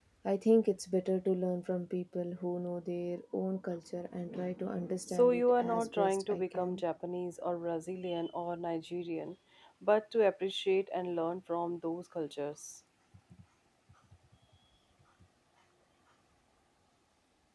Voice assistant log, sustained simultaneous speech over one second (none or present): present